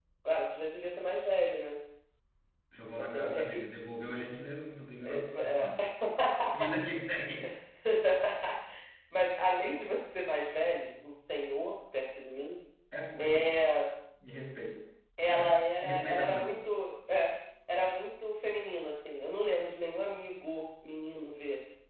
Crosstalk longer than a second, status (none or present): present